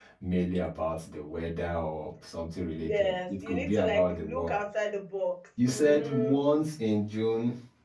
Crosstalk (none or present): present